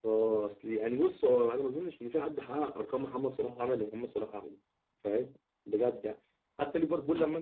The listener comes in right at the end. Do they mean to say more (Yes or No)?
No